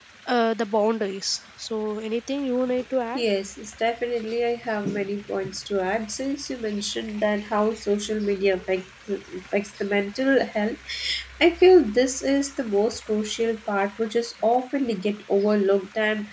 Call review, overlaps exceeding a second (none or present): none